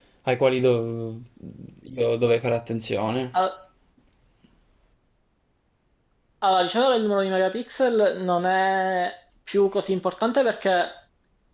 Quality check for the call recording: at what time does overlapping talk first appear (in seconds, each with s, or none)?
none